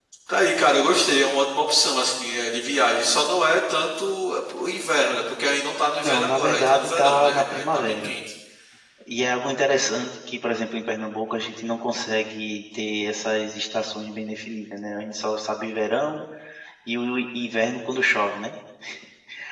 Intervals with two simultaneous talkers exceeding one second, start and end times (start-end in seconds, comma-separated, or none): 6.0-8.1